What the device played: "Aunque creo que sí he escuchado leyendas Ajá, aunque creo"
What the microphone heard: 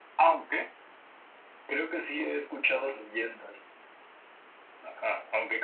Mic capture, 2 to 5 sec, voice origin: echo only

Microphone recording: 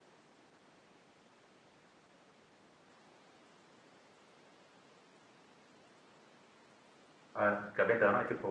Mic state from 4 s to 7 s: neither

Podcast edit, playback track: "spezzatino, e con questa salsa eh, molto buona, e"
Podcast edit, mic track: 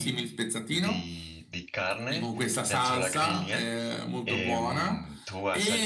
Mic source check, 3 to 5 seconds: both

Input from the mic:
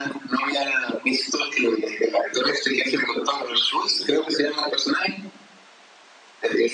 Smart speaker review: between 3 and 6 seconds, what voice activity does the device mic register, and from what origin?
echo only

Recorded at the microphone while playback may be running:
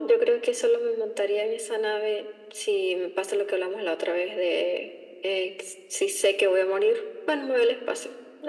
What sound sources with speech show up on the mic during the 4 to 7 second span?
echo only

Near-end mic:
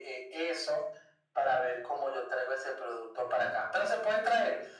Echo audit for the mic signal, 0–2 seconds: echo only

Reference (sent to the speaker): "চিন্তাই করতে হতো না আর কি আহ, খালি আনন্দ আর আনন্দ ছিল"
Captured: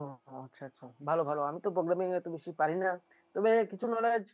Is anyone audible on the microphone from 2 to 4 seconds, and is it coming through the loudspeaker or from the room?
user only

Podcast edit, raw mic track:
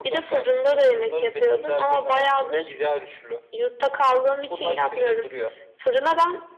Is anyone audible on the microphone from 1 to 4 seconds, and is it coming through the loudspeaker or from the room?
echo only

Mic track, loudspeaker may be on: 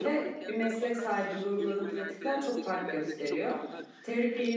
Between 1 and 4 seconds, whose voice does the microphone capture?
both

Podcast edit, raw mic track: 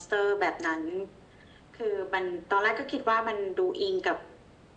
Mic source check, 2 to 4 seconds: echo only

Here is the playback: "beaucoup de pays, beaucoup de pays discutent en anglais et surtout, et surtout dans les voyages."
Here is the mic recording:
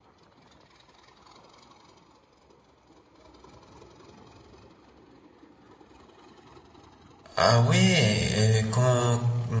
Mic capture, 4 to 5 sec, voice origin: neither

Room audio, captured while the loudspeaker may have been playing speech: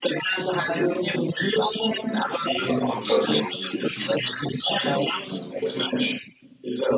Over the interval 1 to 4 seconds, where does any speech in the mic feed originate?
both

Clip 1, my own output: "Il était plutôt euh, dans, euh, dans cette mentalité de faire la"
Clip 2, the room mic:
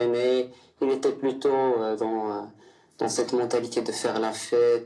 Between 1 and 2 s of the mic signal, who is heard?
echo only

